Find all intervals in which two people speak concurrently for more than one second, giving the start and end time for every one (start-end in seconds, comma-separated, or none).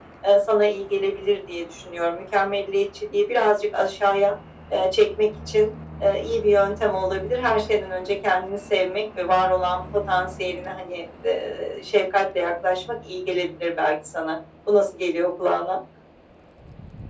none